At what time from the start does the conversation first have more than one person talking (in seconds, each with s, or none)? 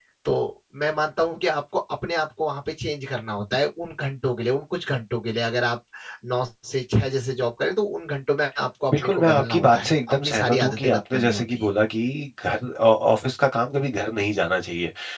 8.9 s